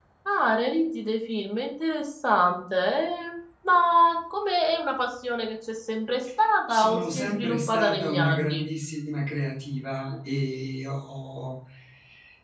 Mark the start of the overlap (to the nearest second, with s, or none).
7 s